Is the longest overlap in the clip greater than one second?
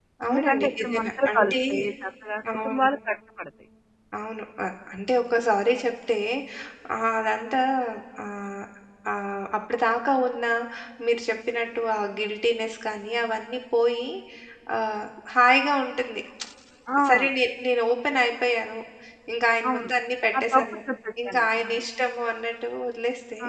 Yes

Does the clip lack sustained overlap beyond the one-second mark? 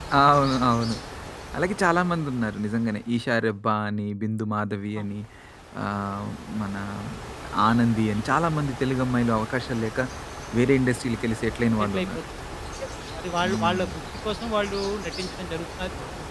Yes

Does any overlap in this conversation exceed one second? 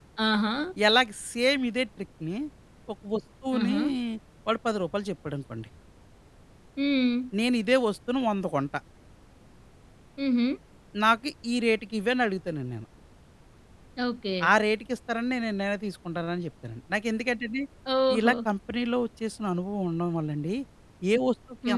No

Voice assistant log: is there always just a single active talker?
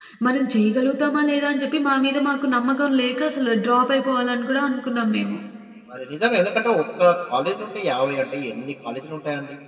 Yes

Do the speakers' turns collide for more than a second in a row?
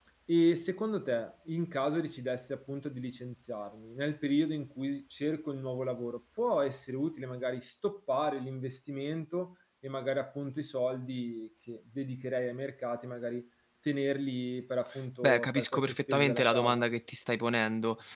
Yes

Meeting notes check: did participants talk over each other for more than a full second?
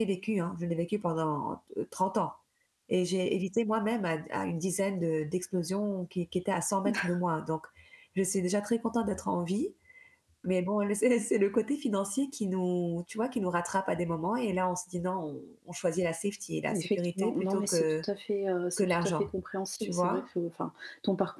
Yes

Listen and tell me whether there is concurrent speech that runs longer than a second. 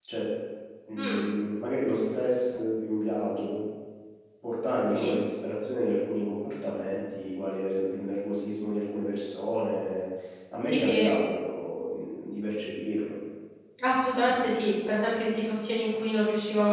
No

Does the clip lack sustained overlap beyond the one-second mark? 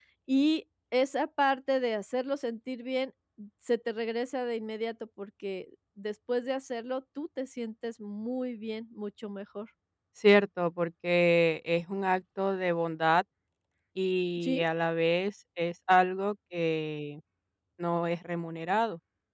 Yes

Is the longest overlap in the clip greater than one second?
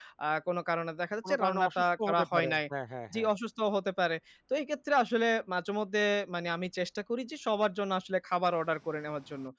Yes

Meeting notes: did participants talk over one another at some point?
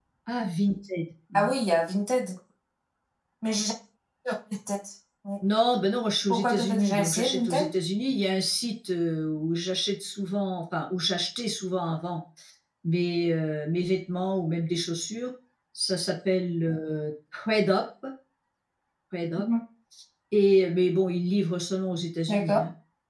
Yes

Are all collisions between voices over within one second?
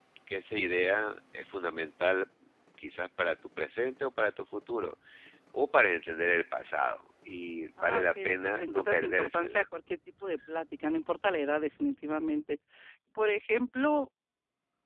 No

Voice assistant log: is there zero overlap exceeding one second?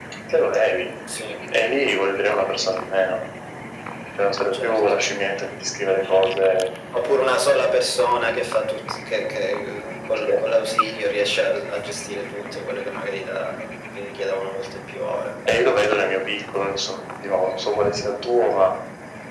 Yes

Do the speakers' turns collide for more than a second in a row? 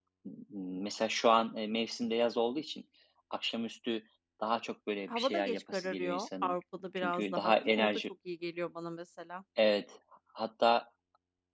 Yes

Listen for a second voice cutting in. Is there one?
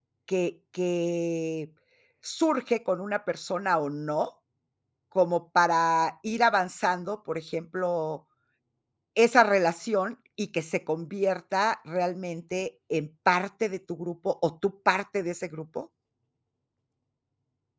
No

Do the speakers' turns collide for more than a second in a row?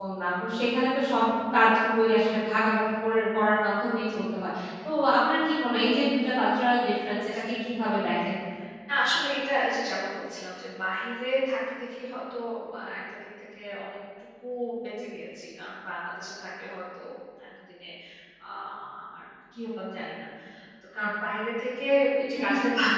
No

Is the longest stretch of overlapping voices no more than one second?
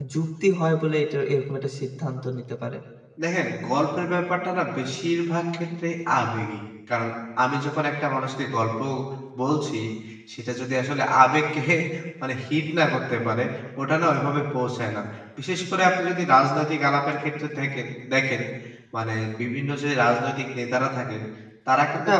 Yes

